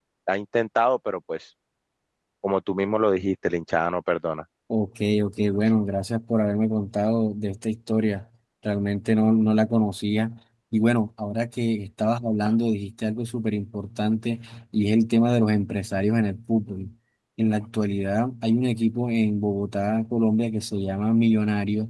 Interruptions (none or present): none